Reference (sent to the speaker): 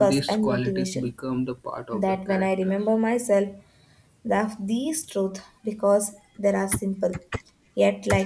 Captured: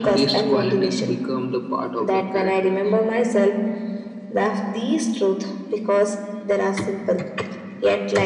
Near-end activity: none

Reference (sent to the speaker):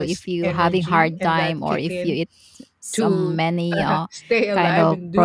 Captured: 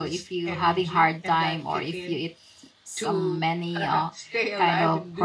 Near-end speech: none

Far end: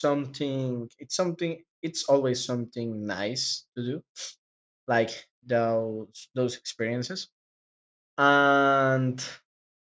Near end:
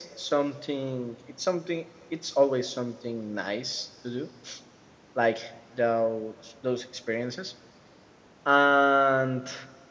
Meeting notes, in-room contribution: none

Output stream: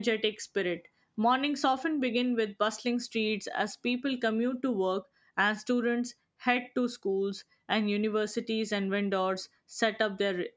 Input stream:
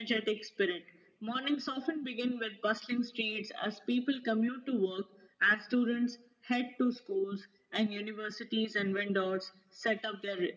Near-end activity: none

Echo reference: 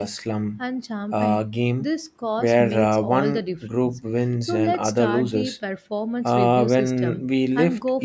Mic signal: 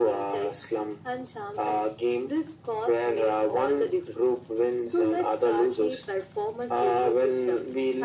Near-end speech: none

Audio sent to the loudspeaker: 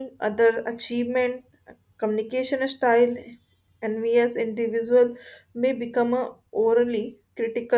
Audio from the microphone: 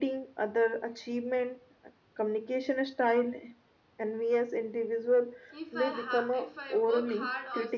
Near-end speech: present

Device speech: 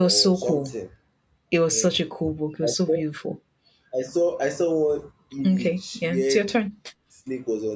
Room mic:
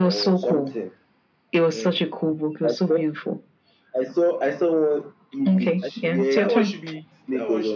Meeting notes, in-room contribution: present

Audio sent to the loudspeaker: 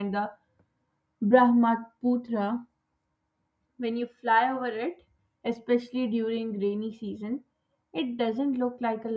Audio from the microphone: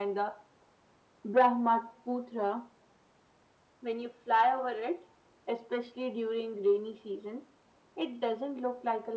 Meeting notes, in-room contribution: none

